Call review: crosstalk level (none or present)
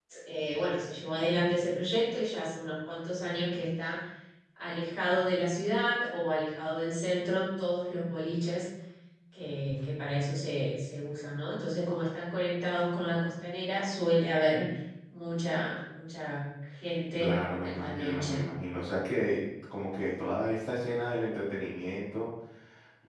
present